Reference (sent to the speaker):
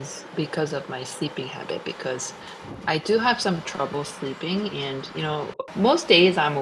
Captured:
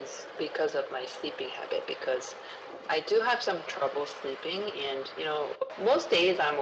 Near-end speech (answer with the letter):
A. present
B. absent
B